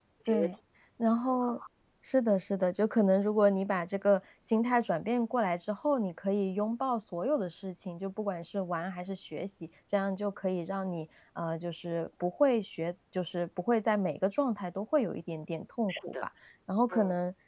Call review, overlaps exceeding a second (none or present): none